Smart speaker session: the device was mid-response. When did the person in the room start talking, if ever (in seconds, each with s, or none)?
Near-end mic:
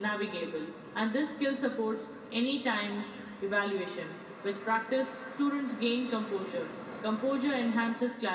none